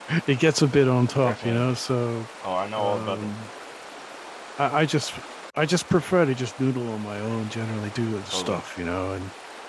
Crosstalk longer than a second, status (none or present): none